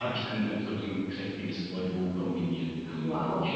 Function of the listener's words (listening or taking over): taking over